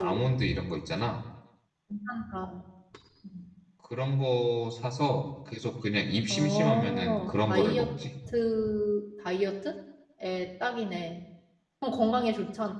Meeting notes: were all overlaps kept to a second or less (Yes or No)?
No